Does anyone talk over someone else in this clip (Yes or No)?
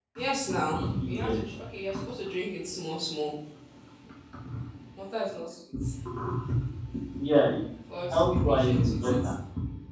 Yes